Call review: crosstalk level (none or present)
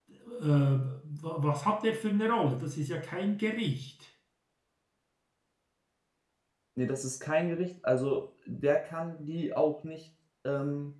none